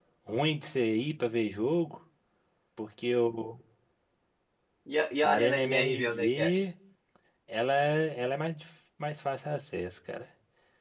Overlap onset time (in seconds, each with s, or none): 5.2 s